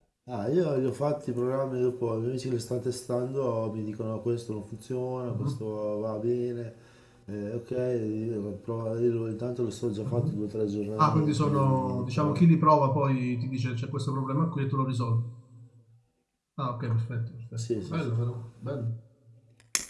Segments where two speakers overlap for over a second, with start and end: 11.0-12.4

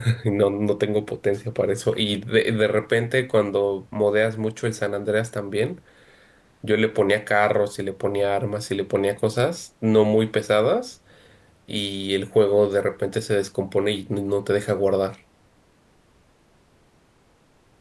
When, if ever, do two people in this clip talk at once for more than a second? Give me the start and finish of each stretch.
none

